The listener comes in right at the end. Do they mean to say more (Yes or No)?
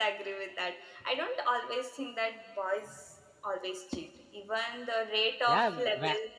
Yes